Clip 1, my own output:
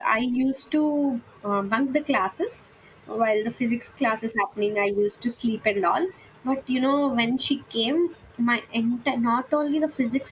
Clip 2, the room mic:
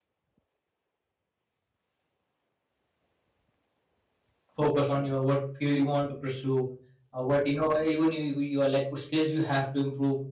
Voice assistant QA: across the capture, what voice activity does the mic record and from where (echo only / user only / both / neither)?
user only